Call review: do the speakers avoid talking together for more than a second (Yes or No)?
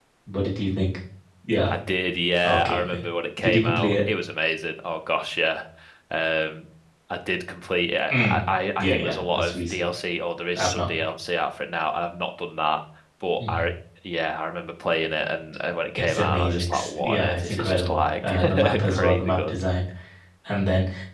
No